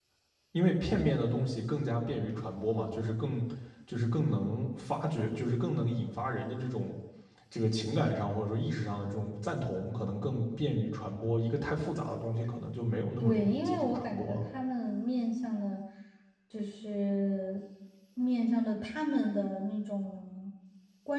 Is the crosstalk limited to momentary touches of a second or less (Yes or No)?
No